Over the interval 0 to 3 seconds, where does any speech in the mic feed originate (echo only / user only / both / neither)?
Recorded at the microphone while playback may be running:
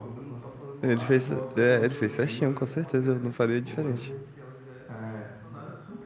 both